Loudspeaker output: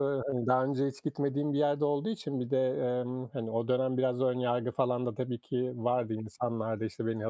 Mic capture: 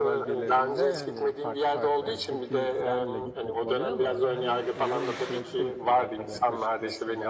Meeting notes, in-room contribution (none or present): present